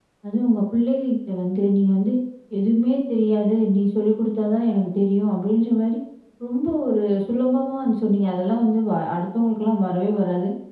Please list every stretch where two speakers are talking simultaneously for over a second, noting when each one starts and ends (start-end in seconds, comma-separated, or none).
none